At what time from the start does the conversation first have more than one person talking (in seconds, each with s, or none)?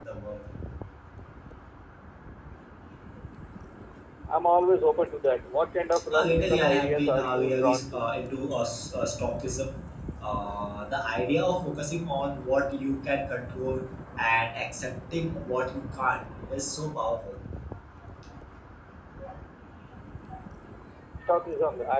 6.1 s